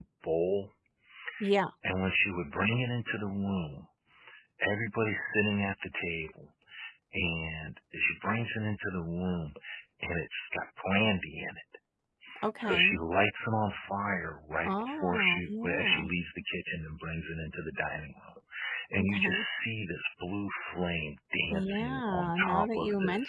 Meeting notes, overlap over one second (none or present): present